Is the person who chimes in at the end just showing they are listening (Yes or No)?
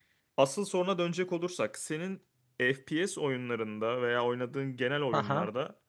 Yes